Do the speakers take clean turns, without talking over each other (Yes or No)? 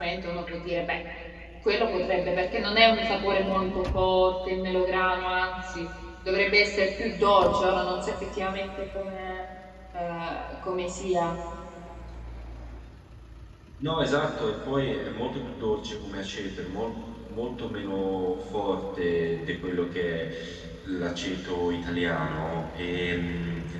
Yes